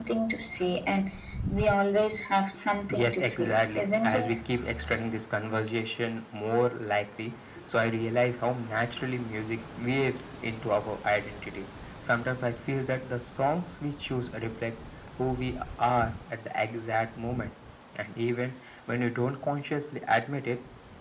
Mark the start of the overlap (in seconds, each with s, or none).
2.9 s